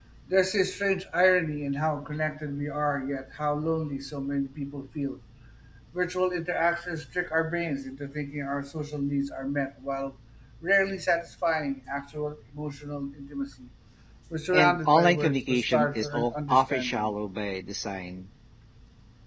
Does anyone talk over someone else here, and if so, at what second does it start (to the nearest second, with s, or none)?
15 s